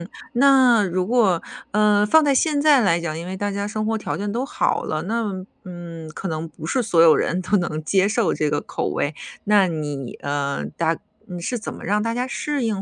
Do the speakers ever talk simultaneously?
No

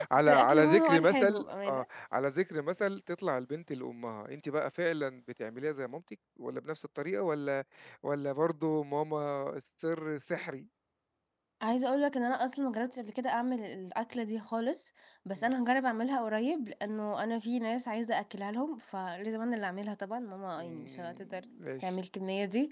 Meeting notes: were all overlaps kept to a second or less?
No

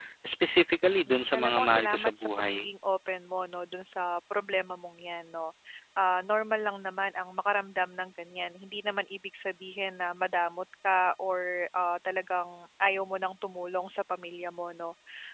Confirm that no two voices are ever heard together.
No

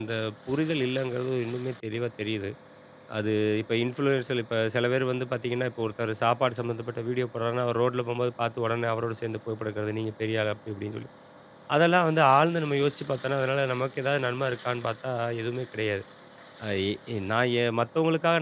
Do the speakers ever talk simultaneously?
No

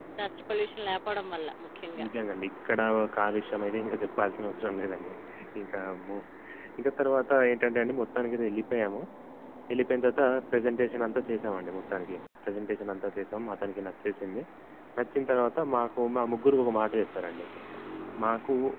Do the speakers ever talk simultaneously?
No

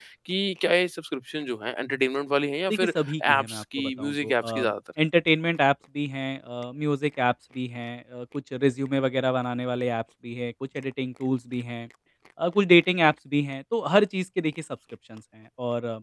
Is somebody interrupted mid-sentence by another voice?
Yes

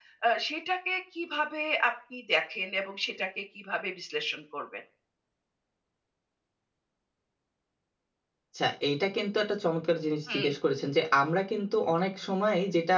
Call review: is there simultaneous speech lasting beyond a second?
No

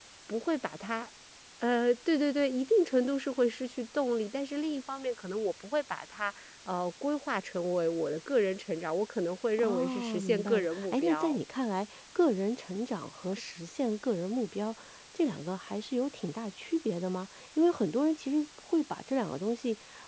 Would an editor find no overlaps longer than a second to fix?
No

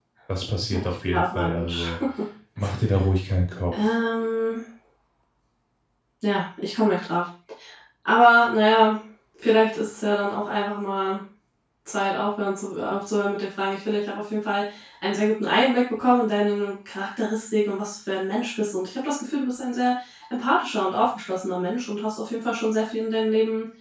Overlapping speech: Yes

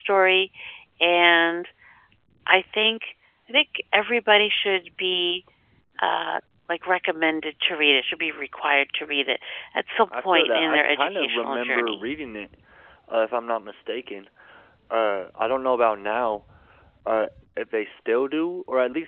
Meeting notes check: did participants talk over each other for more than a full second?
Yes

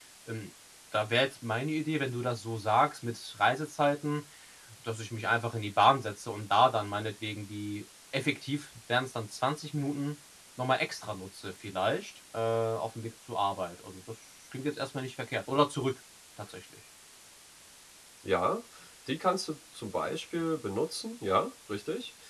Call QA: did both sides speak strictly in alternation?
Yes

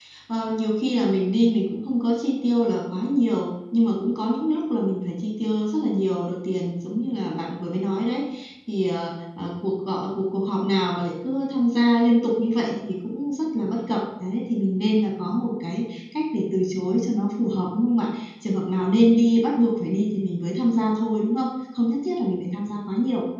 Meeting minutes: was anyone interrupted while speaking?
No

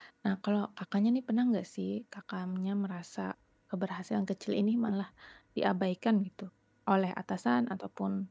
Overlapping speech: No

